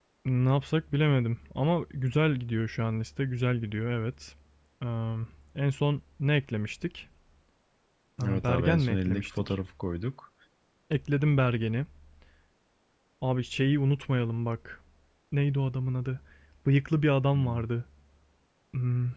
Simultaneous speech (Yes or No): Yes